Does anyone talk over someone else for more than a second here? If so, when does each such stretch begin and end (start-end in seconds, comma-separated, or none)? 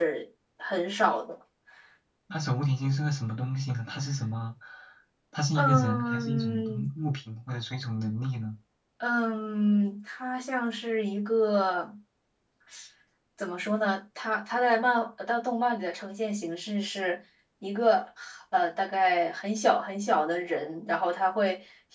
5.5-6.9